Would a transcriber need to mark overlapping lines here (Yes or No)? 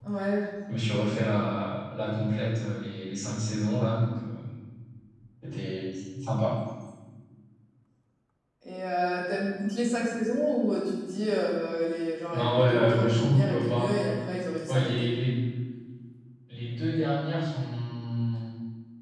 Yes